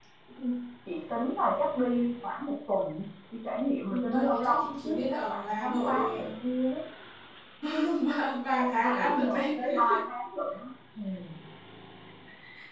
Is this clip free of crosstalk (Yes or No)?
No